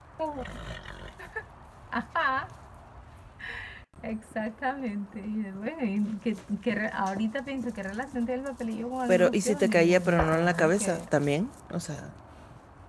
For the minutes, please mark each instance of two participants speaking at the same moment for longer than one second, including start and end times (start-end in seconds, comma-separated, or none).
9.1-11.0